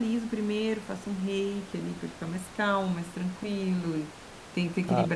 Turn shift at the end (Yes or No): No